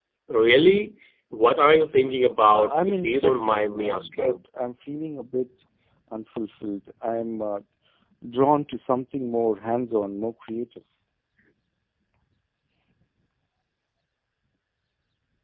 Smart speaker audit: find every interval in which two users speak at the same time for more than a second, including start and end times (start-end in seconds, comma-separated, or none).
2.5-4.4